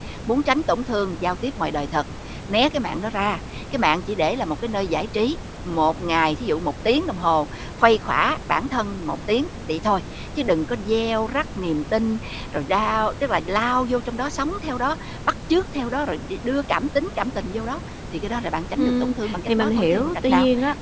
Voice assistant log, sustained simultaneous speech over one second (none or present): present